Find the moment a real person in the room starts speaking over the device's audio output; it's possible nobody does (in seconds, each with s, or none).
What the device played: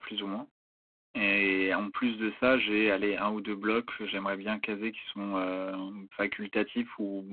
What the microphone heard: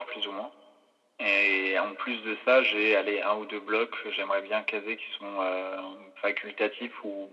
none